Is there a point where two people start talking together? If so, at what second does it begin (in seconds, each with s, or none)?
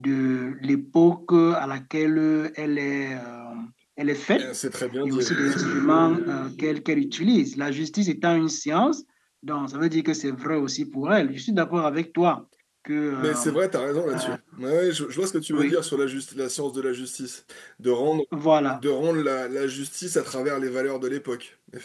5.0 s